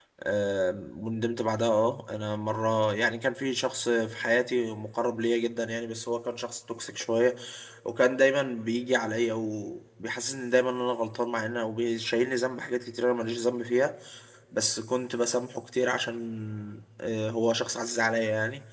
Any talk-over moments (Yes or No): No